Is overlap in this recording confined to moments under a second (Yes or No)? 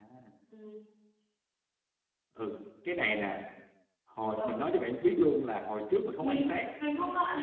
Yes